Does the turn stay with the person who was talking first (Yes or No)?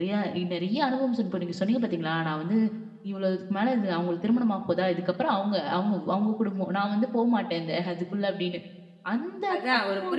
No